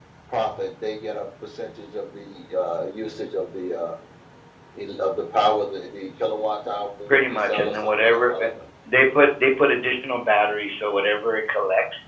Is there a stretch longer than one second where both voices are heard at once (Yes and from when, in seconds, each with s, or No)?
Yes, from 7.1 s